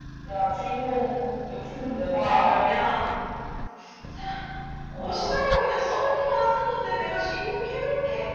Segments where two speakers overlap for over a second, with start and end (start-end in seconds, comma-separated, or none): none